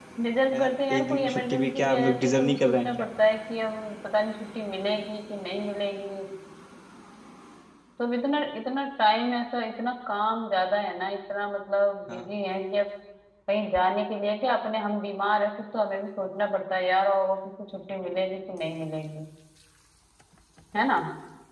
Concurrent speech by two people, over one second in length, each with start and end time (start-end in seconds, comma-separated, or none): 0.5-2.9